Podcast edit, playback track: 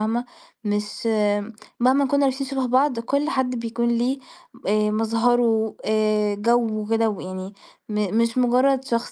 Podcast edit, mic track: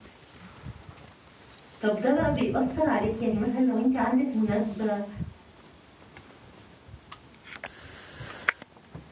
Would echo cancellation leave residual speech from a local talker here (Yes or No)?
Yes